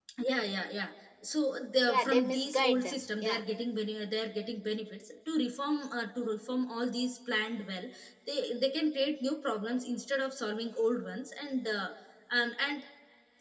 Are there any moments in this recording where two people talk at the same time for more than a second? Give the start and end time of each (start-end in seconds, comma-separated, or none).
1.9-3.4